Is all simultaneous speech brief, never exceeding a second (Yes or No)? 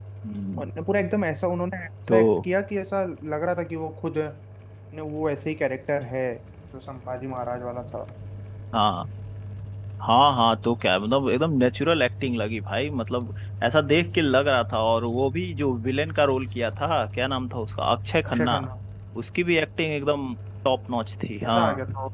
Yes